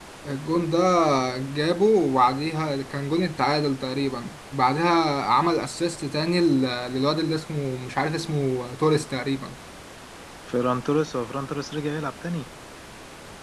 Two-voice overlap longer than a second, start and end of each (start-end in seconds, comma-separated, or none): none